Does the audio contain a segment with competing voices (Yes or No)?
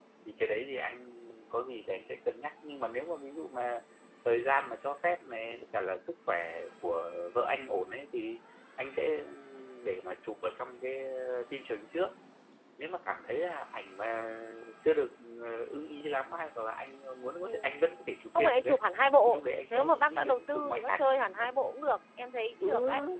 Yes